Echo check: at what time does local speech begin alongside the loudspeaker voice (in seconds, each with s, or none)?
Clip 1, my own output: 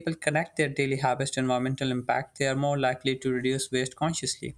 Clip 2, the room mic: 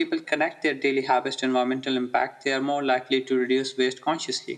none